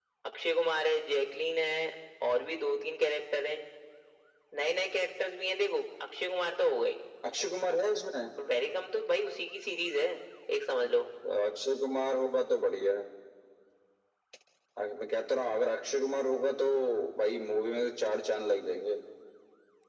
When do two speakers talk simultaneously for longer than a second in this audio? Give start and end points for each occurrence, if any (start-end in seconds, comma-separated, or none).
none